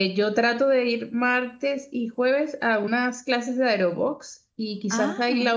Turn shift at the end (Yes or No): No